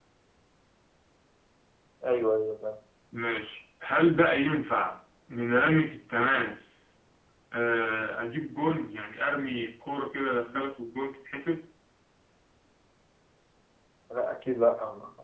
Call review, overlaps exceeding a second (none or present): none